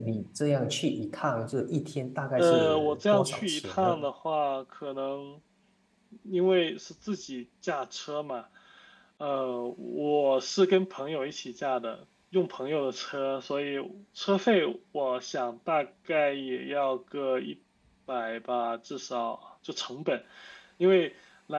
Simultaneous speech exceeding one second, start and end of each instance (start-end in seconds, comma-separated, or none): 2.4-3.9